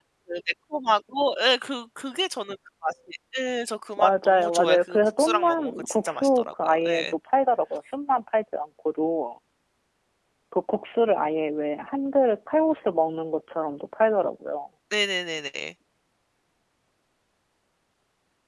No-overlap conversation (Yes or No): No